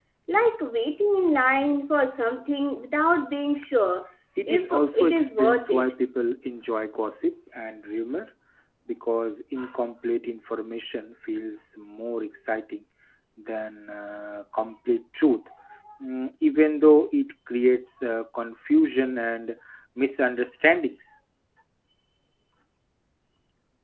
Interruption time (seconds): 4 s

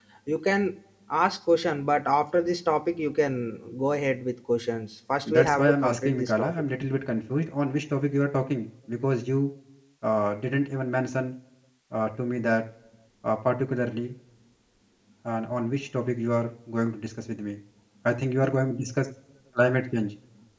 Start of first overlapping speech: 5 s

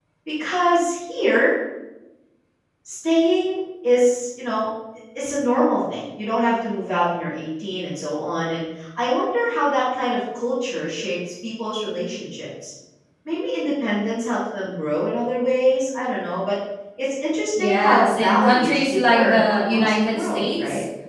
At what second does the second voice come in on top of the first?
18 s

